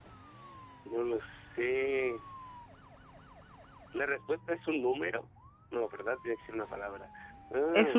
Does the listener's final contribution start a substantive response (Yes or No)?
Yes